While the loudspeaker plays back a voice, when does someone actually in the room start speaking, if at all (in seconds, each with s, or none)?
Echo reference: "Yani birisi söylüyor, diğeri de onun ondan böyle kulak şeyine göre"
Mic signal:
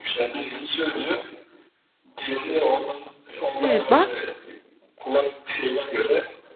3.6 s